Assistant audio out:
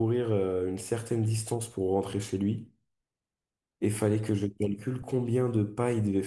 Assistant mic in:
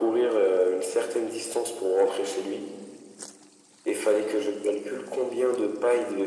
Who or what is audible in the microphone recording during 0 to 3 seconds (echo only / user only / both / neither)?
echo only